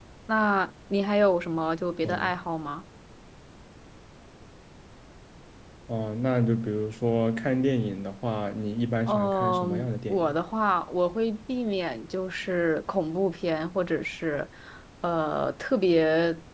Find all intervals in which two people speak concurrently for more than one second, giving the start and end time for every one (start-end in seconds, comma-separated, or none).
9.1-10.4